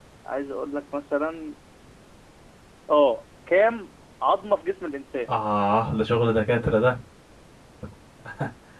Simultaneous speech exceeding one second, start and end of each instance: none

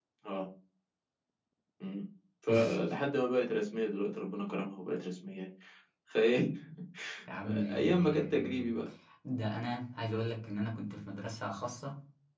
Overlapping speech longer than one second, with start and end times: 7.4-8.7

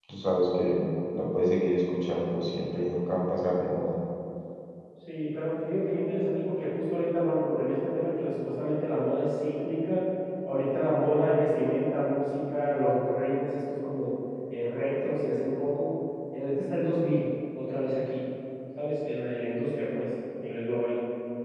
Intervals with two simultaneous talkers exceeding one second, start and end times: none

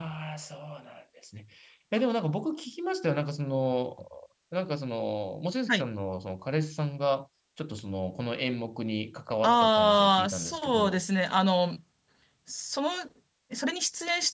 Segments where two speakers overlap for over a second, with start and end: 9.4-11.0

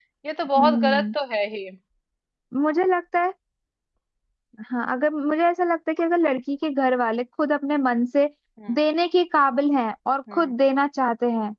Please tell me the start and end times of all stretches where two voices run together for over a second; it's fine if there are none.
none

